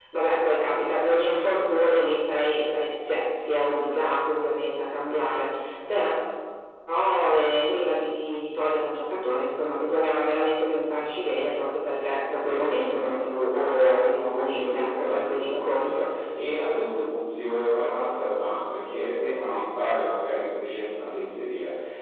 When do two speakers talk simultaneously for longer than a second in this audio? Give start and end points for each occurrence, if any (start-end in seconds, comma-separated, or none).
12.4-16.1